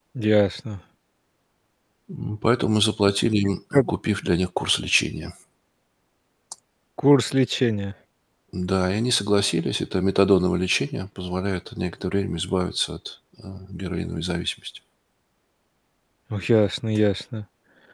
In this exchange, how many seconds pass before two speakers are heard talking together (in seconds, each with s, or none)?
none